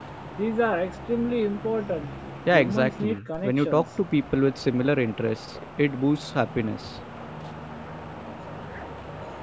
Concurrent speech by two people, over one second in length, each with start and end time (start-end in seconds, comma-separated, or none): 2.5-3.8